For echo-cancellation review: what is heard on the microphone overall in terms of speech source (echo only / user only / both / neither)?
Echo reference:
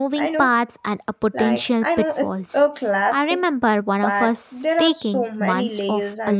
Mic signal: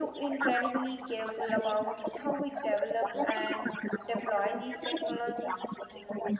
both